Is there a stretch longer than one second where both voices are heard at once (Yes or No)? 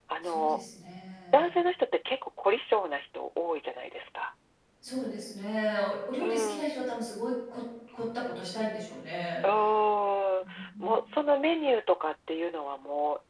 No